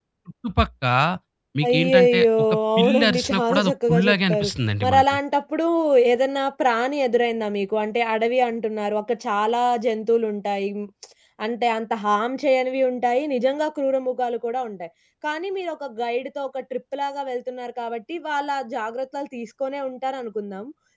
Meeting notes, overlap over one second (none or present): present